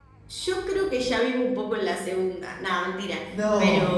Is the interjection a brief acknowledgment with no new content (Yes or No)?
Yes